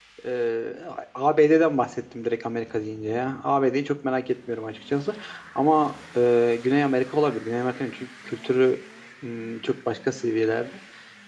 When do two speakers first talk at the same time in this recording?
none

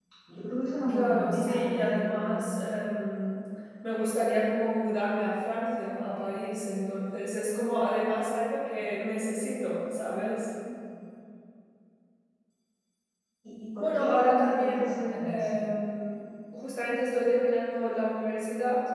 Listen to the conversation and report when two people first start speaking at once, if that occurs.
1 s

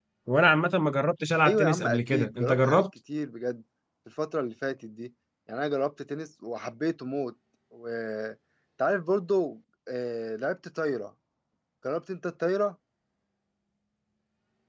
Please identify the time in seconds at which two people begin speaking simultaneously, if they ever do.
1 s

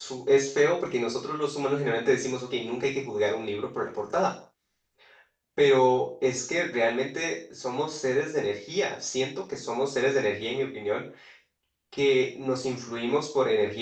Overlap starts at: none

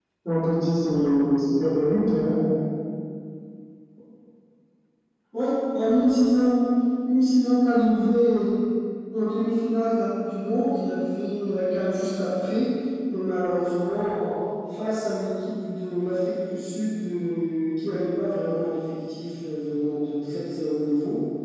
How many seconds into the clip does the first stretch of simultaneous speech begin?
none

